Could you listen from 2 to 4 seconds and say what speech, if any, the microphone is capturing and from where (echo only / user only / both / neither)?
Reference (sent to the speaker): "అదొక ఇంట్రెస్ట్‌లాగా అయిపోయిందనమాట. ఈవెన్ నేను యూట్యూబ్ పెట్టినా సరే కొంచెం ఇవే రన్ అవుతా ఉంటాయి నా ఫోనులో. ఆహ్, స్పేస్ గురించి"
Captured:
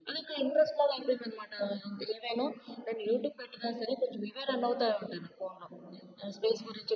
echo only